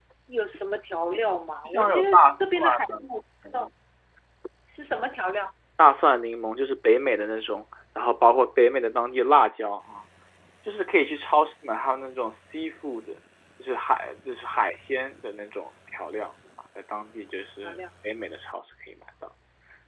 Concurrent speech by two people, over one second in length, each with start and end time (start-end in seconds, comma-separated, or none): 1.6-3.0